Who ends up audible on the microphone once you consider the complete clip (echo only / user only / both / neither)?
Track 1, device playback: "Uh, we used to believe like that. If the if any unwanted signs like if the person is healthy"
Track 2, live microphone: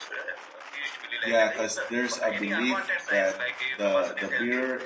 both